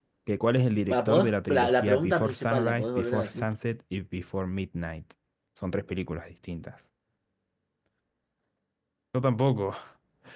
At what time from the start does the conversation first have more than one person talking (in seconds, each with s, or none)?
0.9 s